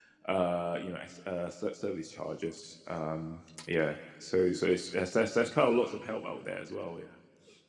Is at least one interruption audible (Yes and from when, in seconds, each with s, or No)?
No